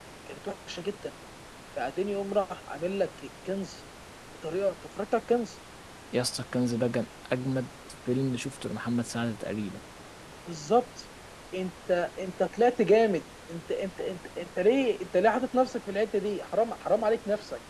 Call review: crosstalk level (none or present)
none